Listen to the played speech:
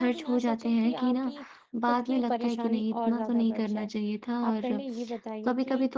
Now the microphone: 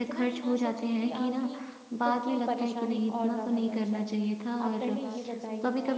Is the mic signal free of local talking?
No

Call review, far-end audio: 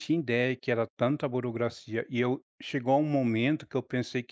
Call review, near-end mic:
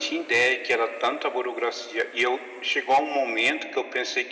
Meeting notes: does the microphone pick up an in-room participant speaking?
No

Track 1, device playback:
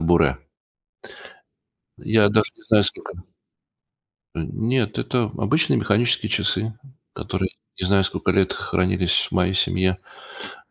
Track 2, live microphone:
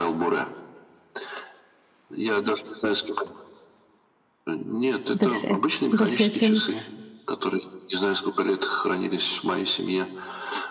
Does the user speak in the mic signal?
Yes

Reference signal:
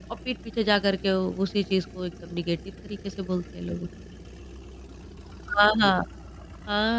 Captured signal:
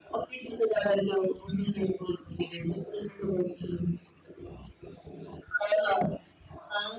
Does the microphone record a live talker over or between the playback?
No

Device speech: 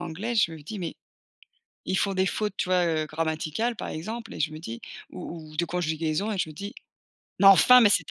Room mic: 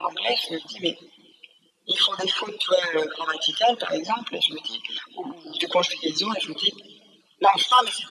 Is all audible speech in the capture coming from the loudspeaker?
Yes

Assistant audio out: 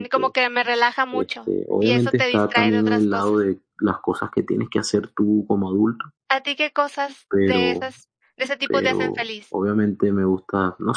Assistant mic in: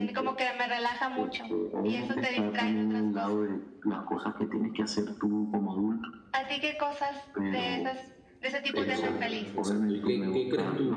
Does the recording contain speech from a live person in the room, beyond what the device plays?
Yes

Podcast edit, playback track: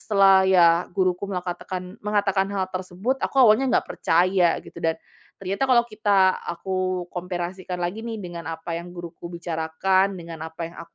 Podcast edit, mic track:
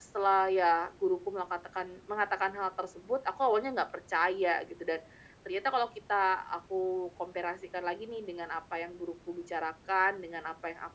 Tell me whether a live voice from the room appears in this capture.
No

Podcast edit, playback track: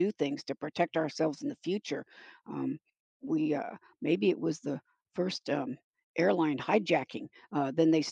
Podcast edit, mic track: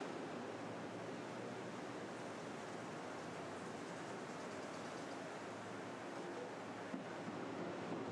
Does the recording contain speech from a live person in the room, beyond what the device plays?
No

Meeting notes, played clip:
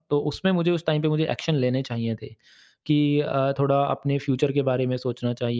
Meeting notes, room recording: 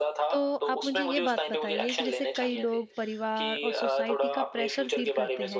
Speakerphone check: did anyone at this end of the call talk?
Yes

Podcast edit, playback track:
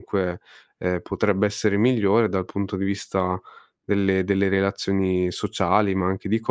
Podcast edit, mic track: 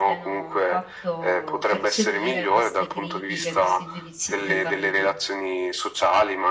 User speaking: Yes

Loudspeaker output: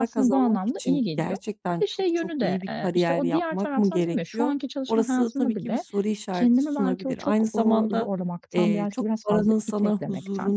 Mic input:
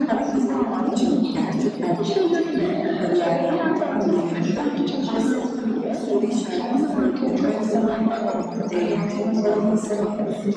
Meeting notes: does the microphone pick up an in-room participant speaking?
No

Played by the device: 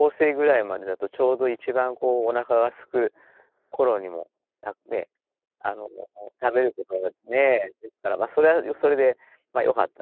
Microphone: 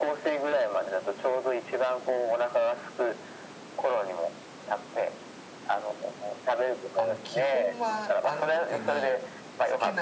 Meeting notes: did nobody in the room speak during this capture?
No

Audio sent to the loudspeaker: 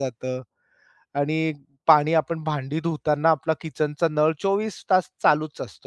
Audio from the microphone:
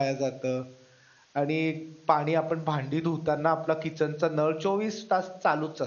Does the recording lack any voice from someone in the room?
Yes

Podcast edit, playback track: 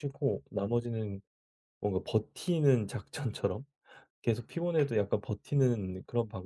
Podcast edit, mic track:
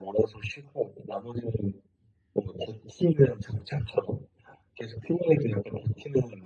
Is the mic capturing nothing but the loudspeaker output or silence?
Yes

